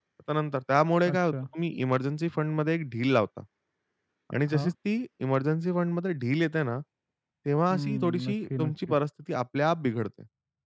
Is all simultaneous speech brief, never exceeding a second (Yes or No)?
No